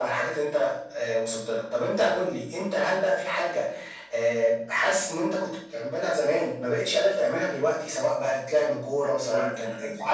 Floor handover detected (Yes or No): Yes